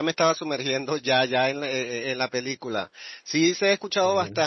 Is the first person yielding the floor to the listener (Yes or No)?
No